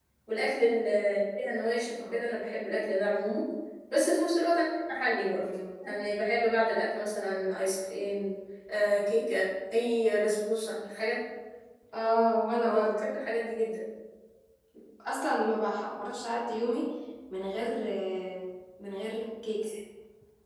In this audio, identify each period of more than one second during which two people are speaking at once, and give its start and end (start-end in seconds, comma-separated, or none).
none